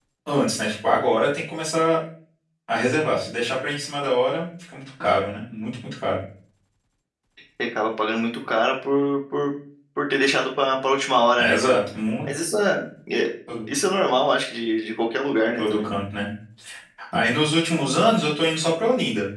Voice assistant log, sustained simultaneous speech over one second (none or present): none